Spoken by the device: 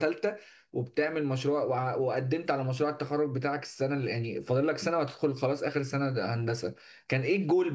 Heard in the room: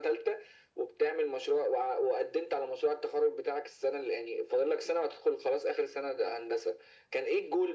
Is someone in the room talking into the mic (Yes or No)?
No